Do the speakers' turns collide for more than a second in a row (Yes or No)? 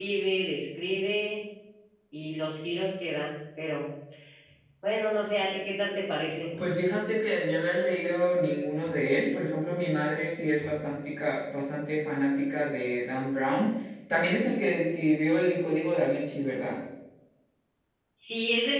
No